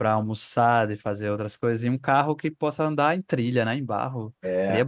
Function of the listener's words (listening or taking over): taking over